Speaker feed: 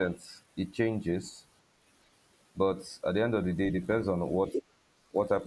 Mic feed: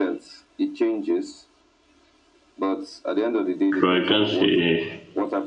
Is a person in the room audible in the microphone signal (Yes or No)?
Yes